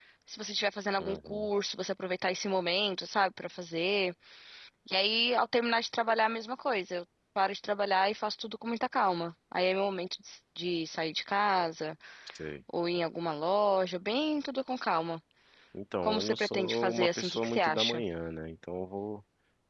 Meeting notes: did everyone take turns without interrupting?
No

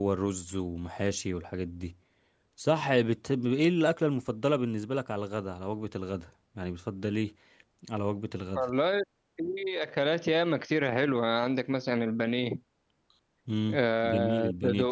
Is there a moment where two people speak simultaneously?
Yes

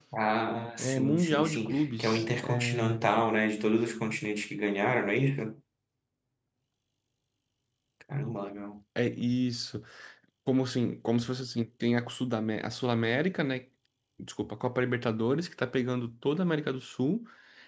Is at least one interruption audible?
Yes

